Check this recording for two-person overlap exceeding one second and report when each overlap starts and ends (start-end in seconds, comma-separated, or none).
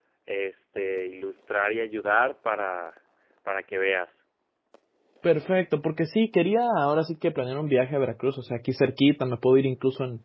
none